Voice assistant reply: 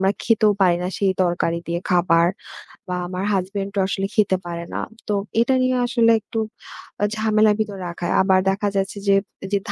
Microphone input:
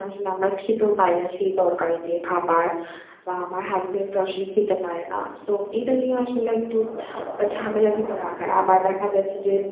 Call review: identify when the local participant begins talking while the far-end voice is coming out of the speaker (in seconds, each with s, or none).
none